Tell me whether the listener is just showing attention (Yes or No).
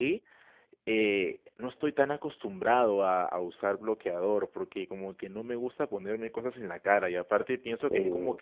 Yes